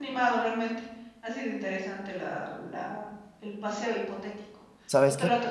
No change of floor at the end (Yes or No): Yes